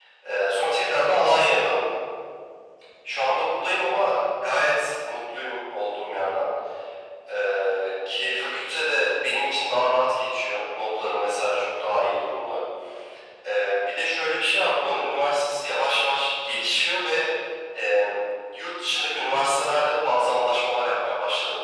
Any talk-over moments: No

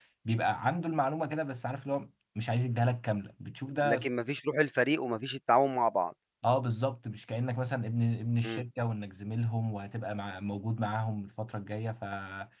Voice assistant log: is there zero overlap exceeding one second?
Yes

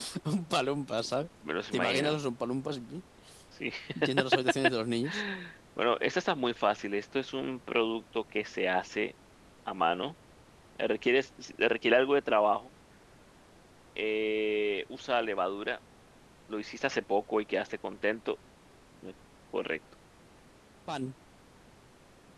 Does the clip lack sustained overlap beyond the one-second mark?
Yes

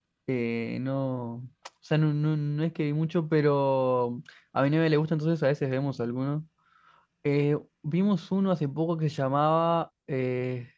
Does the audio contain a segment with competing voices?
No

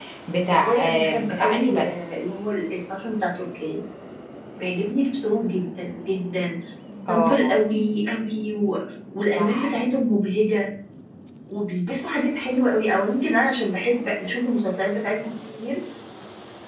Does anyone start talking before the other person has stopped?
Yes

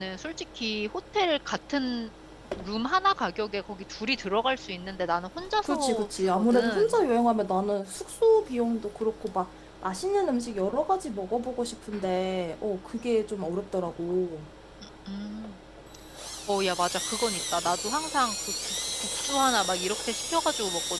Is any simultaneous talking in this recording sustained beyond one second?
Yes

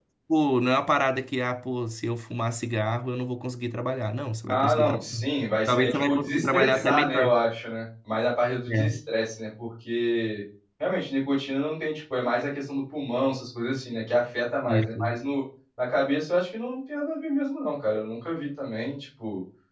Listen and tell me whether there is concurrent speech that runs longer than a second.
Yes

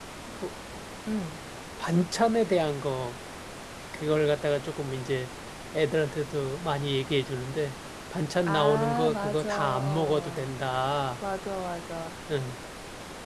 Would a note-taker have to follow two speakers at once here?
Yes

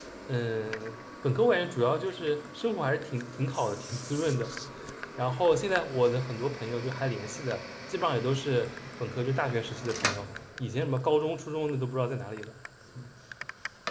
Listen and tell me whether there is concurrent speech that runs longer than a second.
No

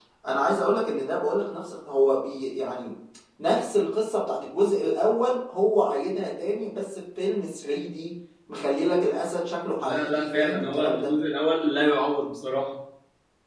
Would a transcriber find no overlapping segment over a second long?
No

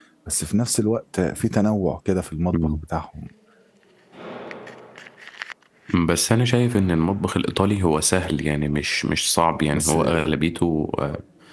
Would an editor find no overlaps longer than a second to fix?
Yes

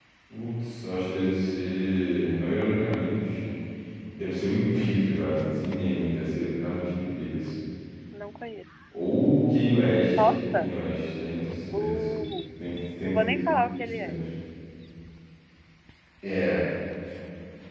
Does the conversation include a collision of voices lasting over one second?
No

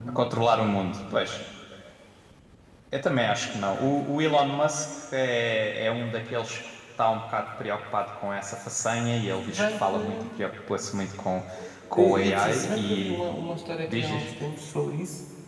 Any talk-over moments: Yes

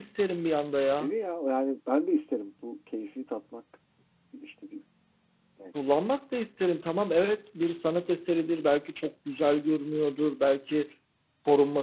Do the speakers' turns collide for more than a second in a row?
No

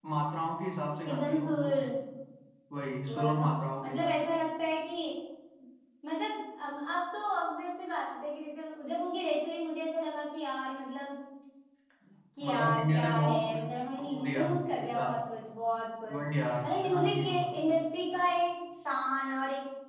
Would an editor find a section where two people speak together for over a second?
Yes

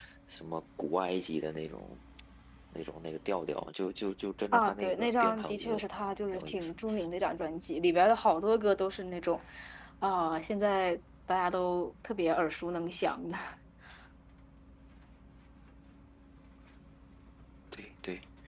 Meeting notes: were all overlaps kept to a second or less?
No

